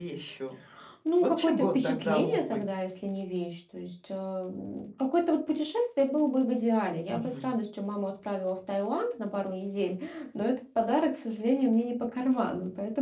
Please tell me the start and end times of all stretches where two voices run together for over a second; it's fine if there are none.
1.2-2.6

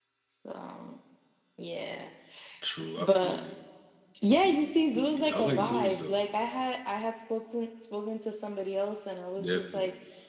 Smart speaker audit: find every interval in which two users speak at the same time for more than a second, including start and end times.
4.9-6.2

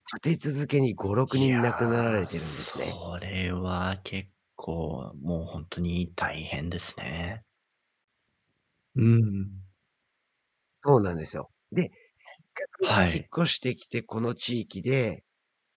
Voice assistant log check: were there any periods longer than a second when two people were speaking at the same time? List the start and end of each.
1.3-3.0

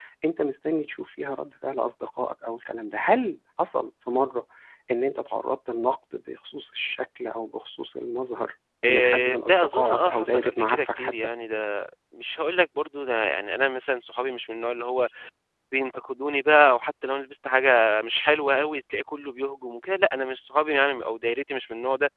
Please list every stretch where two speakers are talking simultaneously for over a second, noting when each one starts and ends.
8.9-11.3

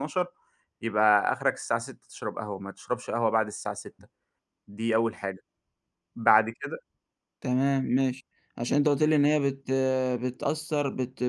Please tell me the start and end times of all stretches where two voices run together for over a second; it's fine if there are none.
none

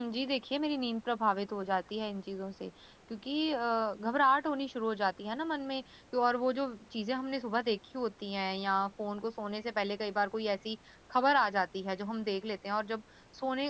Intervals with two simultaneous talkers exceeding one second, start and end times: none

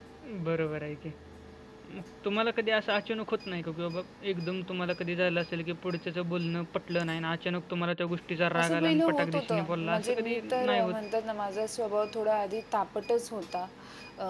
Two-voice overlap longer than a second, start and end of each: 8.6-11.0

